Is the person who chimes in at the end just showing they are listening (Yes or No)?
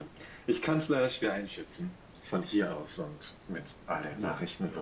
No